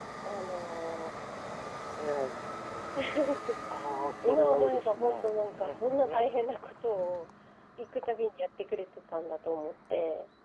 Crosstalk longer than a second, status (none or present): present